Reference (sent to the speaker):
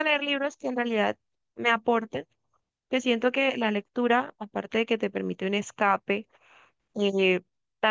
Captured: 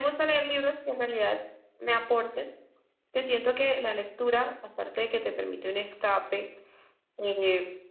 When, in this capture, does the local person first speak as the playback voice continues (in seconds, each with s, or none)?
none